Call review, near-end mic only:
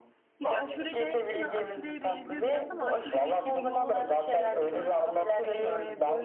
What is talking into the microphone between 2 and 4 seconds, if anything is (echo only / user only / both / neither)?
both